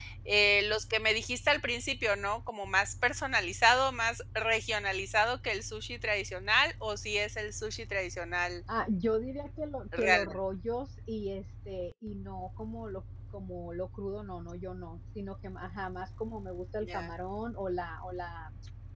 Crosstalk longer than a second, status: none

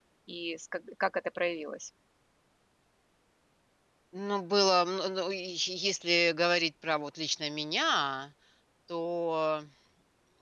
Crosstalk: none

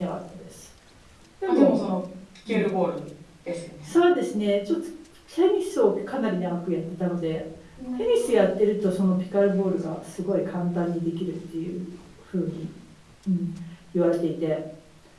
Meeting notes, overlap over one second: none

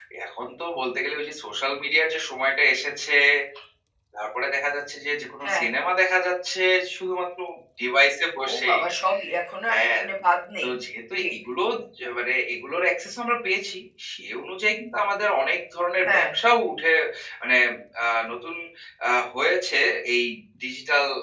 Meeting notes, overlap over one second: none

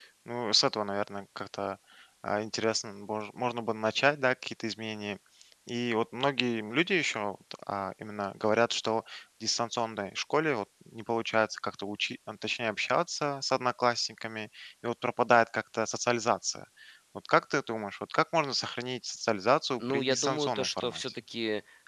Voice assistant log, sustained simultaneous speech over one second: present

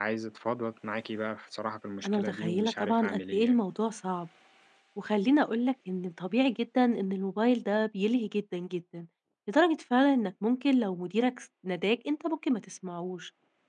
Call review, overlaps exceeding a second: present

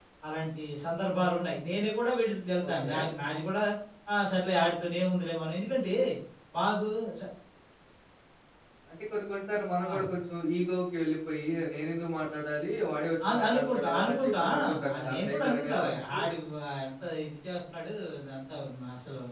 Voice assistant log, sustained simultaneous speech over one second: present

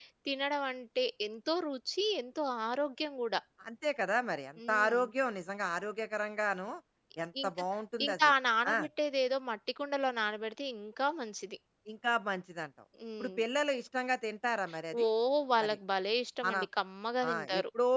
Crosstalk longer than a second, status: none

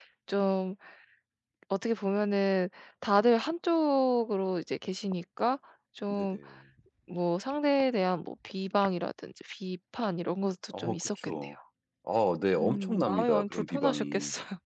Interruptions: present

